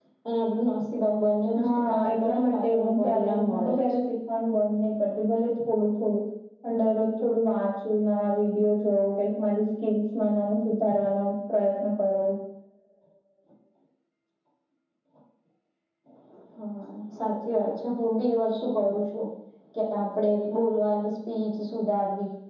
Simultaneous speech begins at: 1.6 s

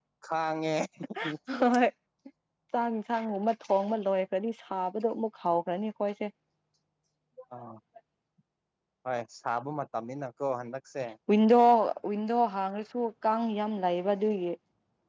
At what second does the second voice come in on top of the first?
none

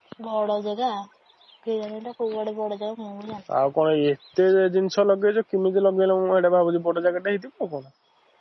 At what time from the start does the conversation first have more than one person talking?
none

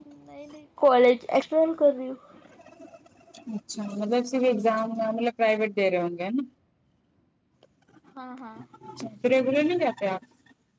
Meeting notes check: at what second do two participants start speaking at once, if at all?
none

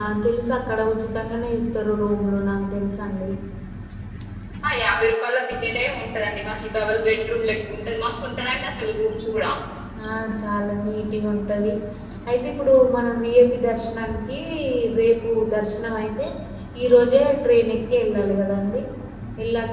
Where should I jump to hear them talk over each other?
none

